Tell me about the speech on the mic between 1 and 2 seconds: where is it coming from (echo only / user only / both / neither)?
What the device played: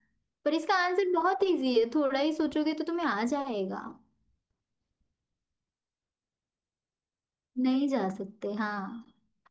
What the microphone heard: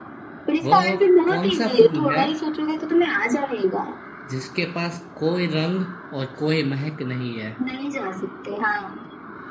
both